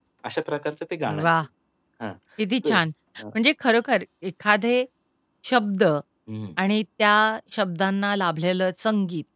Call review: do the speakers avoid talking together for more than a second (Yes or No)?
Yes